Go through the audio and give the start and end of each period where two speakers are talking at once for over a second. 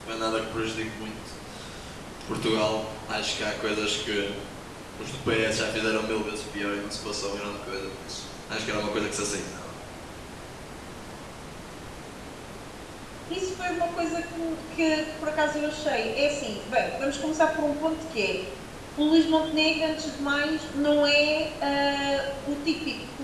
none

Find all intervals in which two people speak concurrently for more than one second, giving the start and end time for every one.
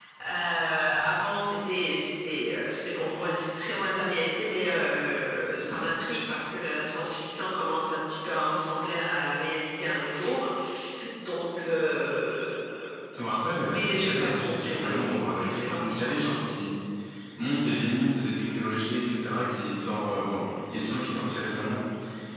13.6-15.8

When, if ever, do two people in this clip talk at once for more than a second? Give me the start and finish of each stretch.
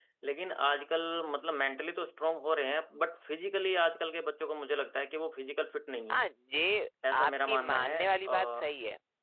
7.1-8.7

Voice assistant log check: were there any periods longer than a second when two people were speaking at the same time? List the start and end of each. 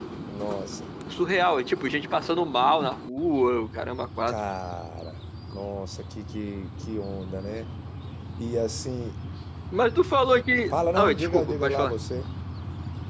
10.7-11.9

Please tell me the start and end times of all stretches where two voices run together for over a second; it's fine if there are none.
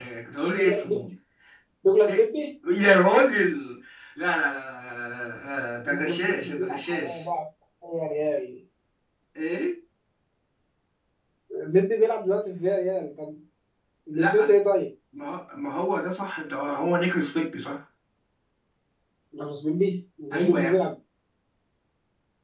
5.9-7.2

